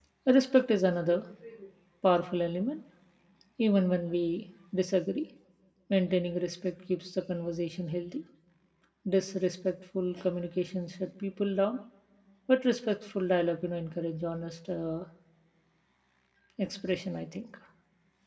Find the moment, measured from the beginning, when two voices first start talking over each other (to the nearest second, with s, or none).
none